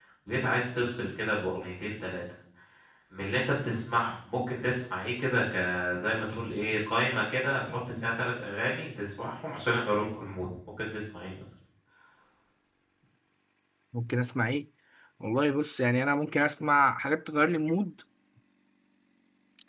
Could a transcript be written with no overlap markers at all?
Yes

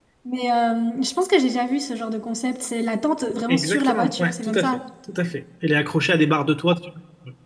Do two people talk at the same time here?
Yes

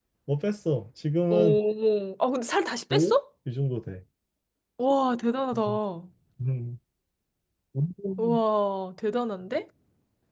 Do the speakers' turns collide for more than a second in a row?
No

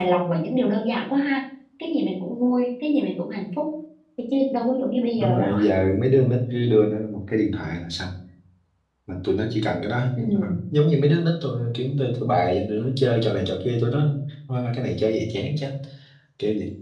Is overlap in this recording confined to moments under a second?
Yes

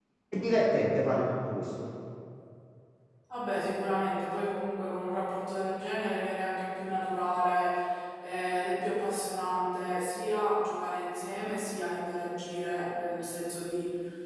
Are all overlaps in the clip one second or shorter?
Yes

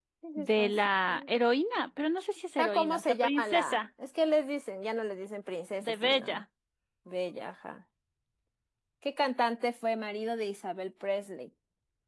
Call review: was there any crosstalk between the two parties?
Yes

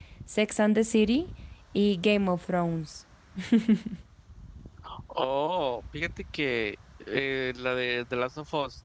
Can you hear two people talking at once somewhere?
No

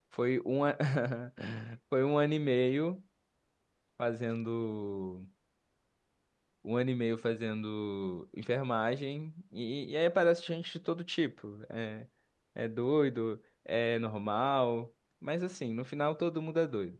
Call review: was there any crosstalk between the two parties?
No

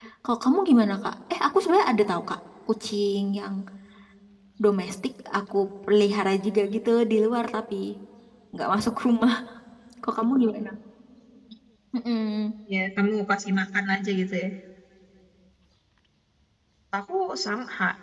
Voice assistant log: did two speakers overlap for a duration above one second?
No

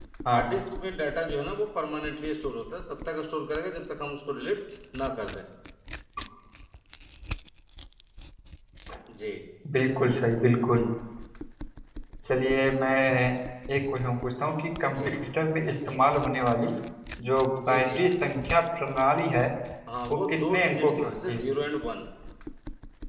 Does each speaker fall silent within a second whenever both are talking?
No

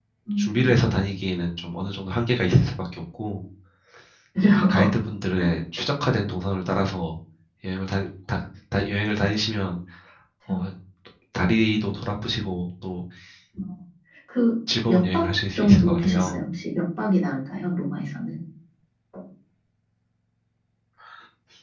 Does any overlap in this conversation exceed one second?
Yes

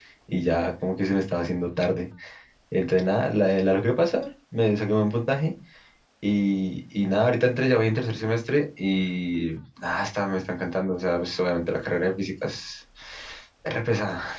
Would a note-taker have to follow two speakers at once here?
No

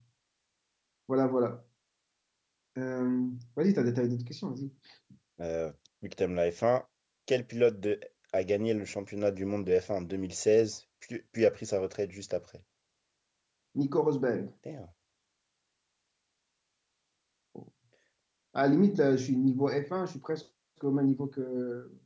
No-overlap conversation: Yes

